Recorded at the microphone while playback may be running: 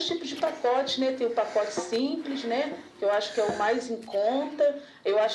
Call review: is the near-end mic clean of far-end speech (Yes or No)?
No